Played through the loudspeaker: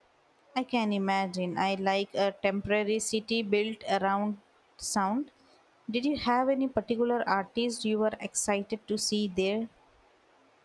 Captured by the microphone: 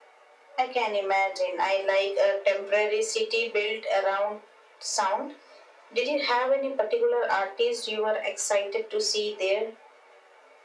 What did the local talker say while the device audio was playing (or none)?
none